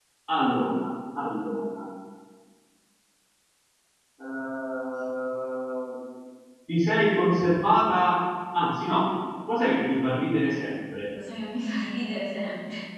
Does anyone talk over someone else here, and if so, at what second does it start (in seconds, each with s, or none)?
none